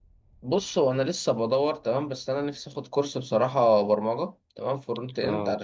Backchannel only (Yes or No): Yes